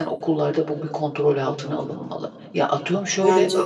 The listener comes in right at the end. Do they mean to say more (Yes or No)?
No